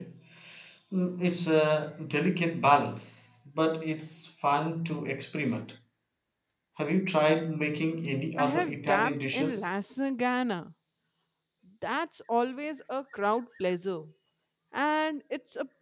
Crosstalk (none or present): present